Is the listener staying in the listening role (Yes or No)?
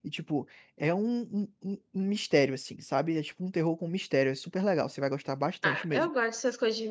No